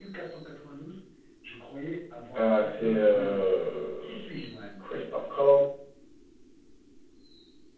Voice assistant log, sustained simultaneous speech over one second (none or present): present